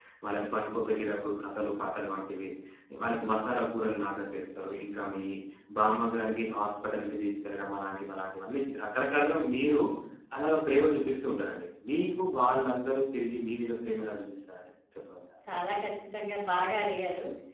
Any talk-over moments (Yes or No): No